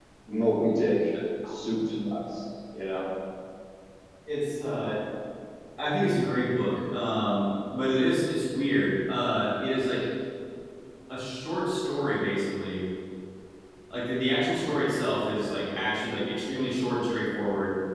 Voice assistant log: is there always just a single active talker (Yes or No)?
Yes